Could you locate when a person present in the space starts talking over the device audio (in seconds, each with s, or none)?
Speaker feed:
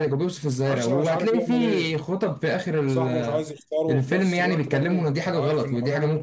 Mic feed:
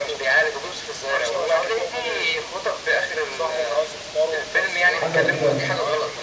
4.9 s